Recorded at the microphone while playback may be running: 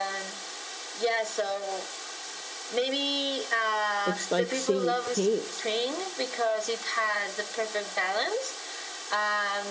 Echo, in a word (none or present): present